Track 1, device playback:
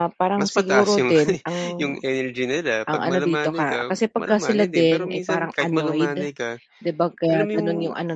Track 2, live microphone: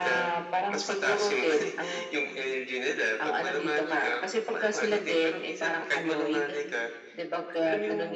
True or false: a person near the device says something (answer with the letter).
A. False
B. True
A